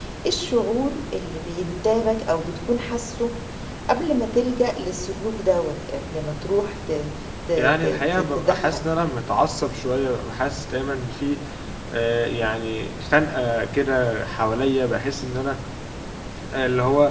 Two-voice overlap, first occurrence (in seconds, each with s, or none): 7.6 s